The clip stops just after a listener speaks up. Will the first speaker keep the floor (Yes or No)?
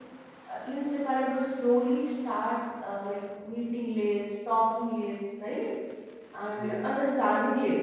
Yes